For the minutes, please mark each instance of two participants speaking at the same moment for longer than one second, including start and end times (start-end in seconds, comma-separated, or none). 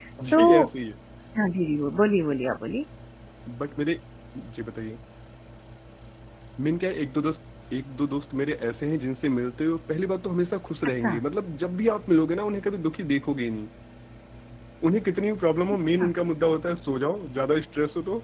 none